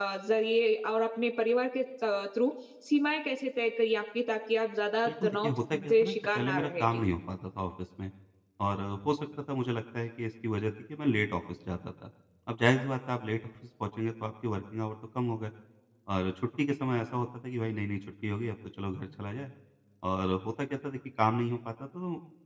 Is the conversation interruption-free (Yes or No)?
No